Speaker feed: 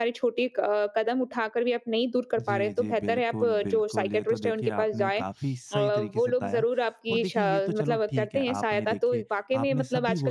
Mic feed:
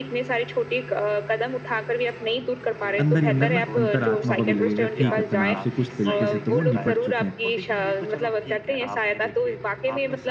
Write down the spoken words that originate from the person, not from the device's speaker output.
अंदर ही अंदर ना अंतरात्मा को भी लगेगा ठीक है, तनाव से कुछ तरीके से तो वो निपट चुके हैं।

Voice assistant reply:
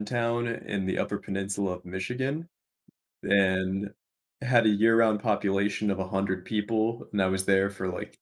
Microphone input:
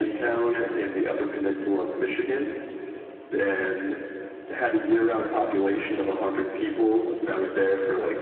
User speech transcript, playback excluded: none

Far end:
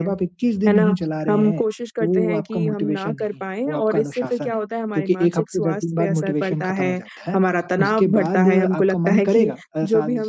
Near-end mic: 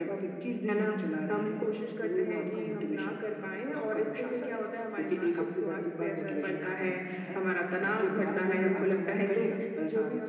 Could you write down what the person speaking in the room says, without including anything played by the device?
none

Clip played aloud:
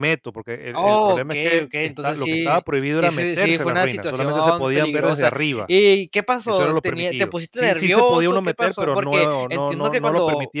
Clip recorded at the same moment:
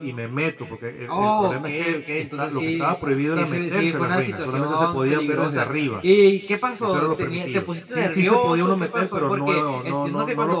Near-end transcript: none

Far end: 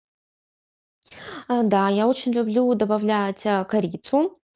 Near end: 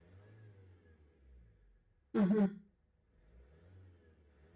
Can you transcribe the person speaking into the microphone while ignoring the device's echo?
Мгм.

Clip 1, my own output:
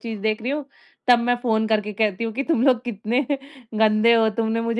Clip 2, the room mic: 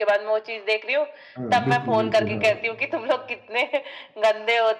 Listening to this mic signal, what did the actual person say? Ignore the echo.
हाँ, बिल्कुल, बिल्कुल। हाँ।

